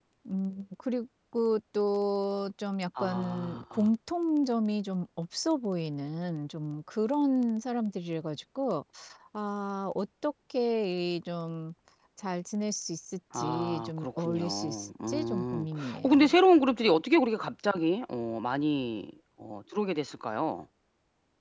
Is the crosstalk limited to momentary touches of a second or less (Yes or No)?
No